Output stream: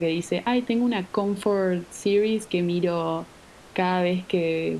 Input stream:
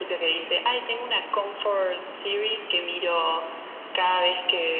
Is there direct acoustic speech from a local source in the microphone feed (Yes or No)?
No